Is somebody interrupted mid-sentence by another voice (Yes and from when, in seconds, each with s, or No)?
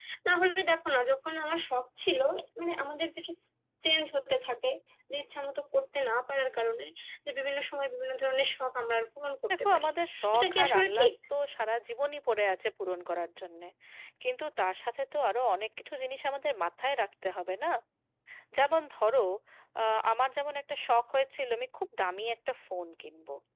Yes, from 9.6 s